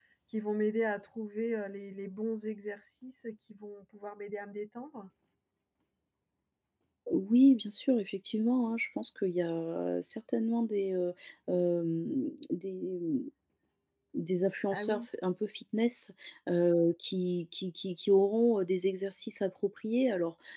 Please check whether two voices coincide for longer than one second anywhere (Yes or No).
No